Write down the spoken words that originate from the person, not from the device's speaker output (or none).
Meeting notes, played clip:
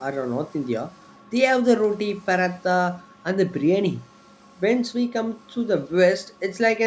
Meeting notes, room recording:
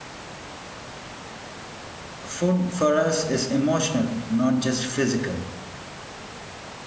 Food for us is emotional, not just physical.